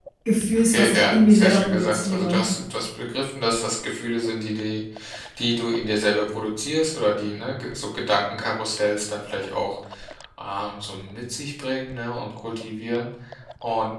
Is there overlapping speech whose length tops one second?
Yes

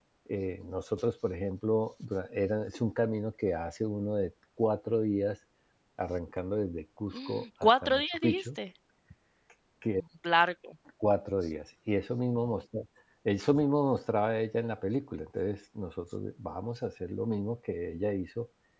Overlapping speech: Yes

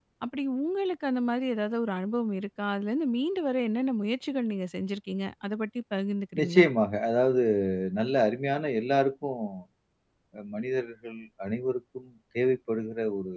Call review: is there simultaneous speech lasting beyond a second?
No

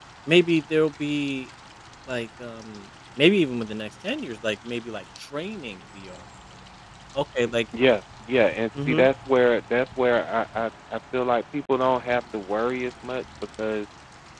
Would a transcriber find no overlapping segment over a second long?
Yes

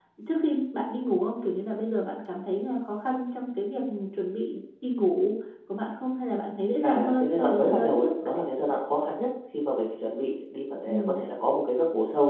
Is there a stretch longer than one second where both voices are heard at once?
Yes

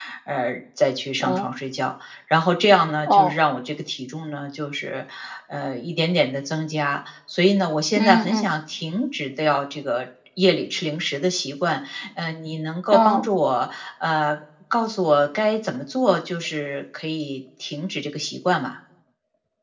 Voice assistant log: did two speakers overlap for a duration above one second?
No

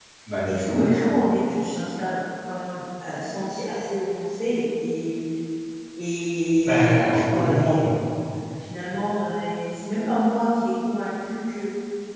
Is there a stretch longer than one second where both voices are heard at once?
Yes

